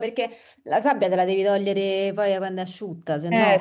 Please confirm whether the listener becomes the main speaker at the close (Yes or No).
Yes